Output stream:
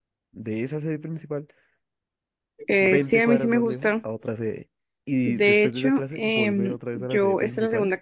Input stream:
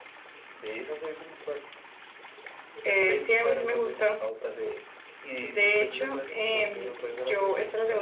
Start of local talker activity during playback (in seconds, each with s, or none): none